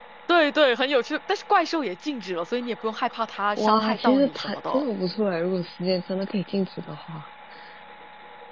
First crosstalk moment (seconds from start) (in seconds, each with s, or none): 3.6 s